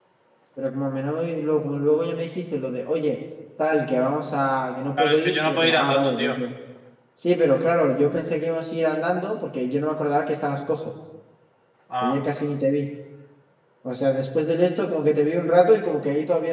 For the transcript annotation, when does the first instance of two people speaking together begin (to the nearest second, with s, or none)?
5 s